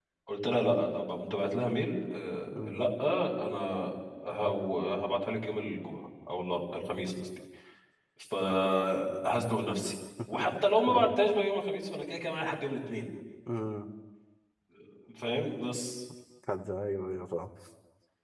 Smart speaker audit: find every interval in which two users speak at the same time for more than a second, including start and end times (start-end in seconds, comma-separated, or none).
none